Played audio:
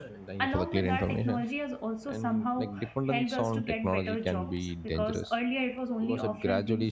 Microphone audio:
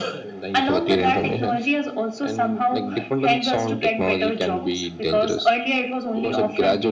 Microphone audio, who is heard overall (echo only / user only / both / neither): echo only